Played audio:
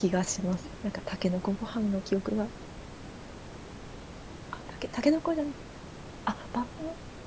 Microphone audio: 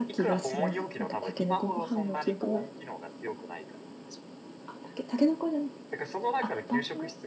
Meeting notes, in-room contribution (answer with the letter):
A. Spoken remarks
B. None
A